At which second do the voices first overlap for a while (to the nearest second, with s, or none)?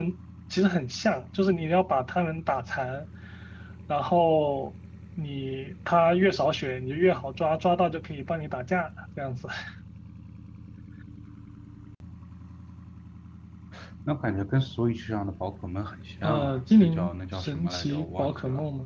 16 s